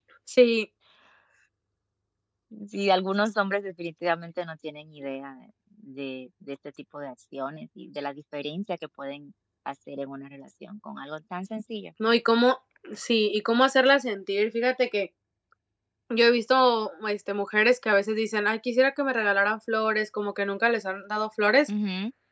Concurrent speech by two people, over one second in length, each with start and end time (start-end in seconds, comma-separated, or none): none